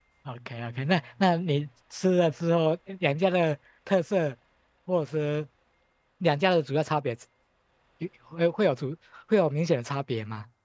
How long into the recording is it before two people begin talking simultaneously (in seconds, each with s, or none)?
none